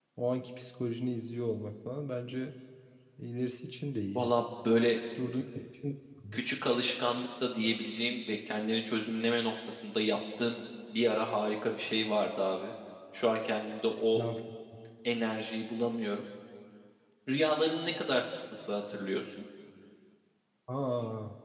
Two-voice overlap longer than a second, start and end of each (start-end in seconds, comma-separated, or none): none